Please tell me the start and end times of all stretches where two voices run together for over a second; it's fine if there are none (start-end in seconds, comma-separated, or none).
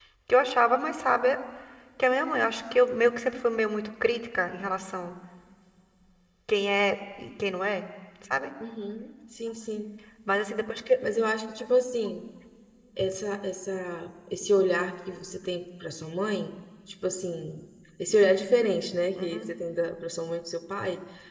none